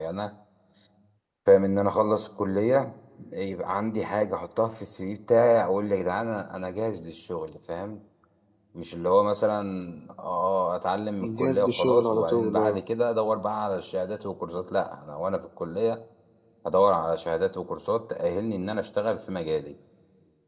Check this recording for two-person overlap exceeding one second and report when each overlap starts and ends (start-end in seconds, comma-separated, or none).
11.4-12.8